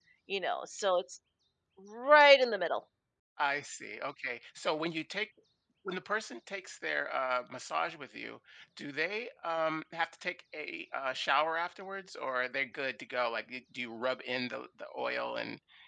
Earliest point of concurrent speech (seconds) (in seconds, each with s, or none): none